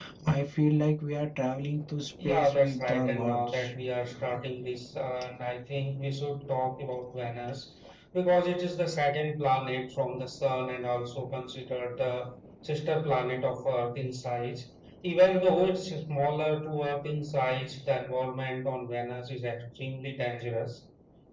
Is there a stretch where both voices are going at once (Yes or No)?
Yes